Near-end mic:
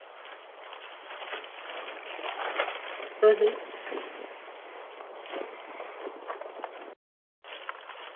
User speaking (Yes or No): Yes